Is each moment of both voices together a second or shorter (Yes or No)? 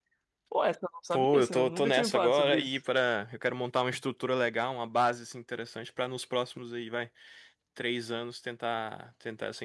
No